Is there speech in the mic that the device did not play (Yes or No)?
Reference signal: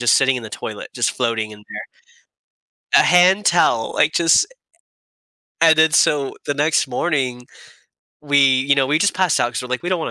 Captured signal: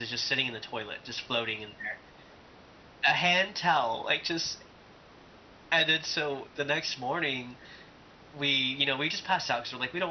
No